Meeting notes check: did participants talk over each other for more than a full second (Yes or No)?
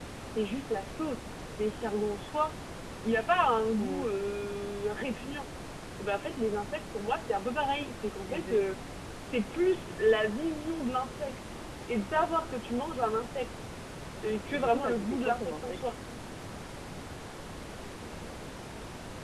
Yes